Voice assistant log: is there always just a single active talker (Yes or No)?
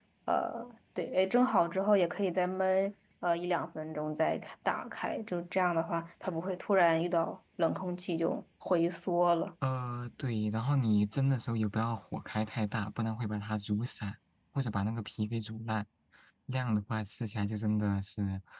Yes